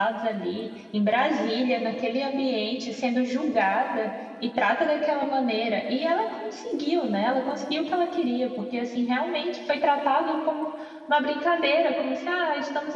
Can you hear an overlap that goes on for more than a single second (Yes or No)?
No